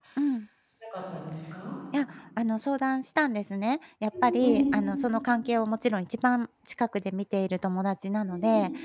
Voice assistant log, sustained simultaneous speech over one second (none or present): none